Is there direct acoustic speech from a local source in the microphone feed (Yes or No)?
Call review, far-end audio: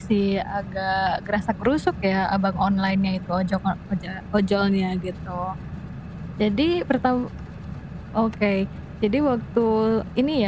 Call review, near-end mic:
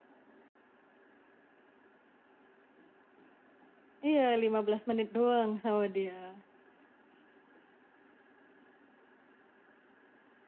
Yes